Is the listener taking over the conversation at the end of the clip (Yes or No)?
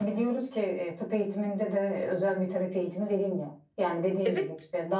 No